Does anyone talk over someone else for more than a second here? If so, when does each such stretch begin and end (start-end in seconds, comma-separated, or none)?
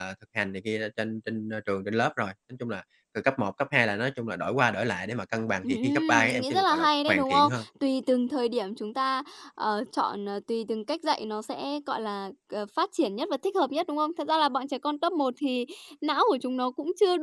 5.6-7.6